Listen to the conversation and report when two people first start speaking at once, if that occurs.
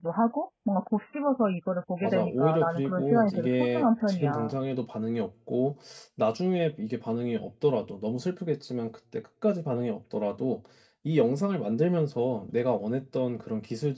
2.0 s

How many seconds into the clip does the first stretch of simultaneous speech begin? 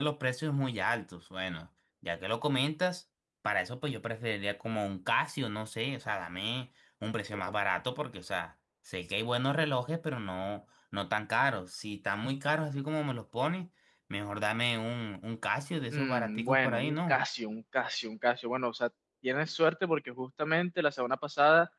15.9 s

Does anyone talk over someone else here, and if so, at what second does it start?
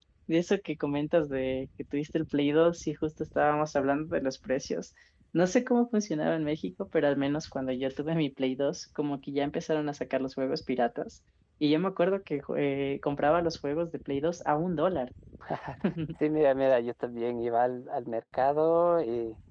none

